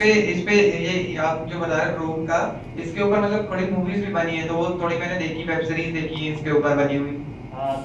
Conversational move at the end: taking over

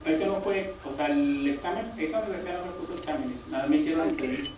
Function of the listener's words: listening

